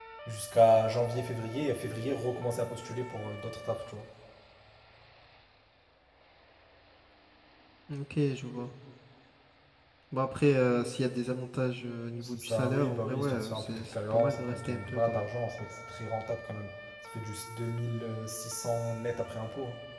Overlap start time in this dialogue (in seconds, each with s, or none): 12.2 s